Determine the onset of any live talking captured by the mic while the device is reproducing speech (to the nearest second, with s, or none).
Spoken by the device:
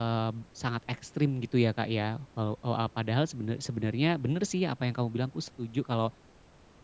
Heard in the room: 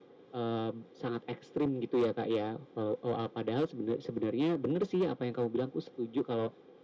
none